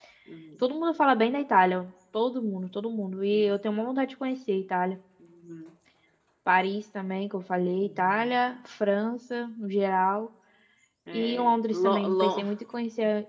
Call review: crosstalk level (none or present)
present